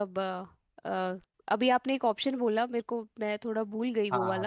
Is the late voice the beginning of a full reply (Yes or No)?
Yes